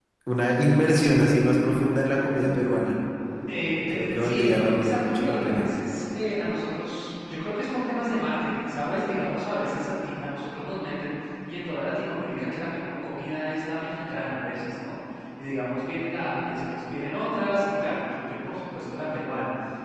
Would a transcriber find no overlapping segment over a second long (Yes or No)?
No